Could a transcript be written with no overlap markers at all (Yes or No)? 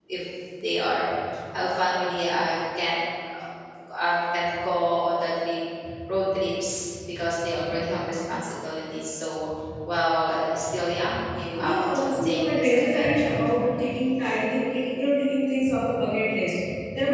No